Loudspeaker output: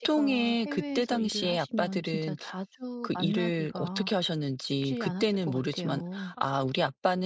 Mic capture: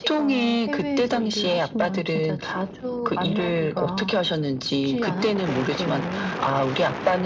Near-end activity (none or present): none